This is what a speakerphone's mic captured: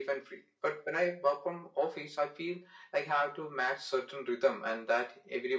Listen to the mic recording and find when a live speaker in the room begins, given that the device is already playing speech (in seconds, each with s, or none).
none